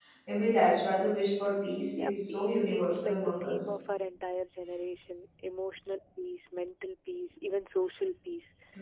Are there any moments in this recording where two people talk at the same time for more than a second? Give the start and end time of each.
2.0-3.8

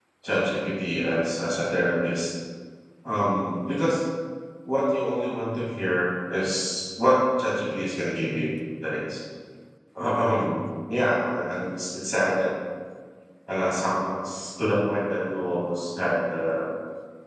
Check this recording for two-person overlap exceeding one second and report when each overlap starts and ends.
none

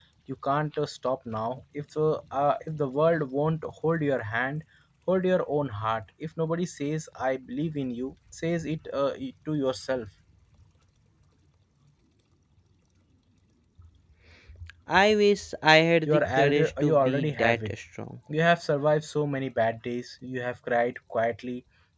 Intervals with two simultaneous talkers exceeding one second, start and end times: 16.1-17.7

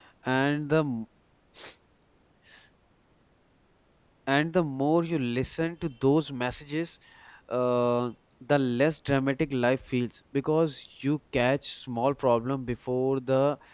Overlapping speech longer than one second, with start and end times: none

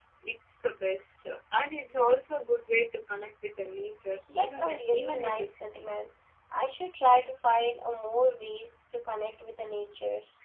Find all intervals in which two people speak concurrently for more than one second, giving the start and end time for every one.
4.3-5.9

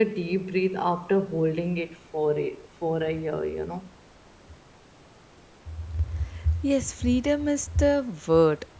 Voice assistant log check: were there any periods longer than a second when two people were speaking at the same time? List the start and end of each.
none

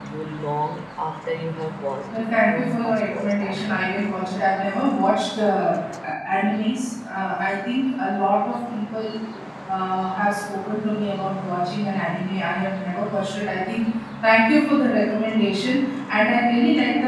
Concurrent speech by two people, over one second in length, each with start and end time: 2.1-3.9

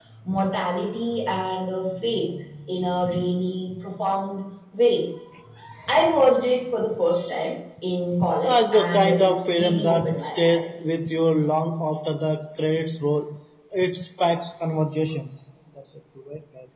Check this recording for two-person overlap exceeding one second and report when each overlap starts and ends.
8.3-10.9

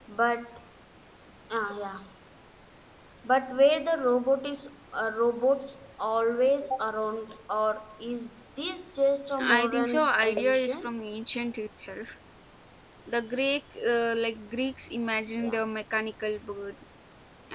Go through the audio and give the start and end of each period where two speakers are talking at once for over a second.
9.6-10.9

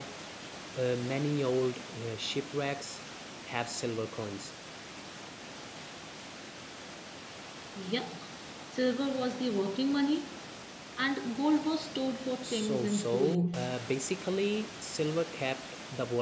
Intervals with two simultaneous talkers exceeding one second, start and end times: 12.4-13.7

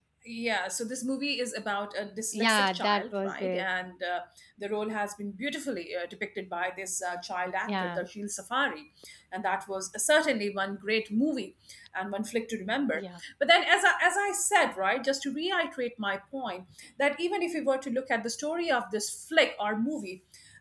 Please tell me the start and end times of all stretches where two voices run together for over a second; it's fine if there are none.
2.3-3.6

